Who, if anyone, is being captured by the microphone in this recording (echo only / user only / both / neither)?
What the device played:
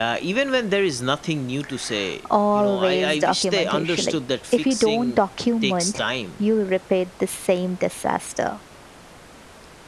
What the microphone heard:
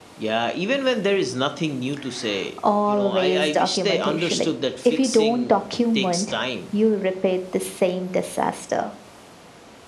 echo only